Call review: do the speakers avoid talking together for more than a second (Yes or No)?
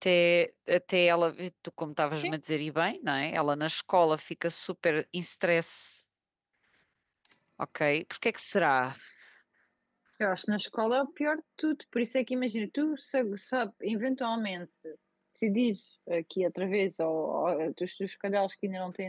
Yes